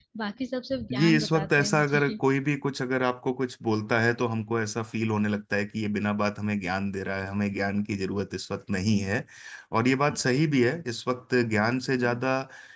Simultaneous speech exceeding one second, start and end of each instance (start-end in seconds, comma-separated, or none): 0.9-2.2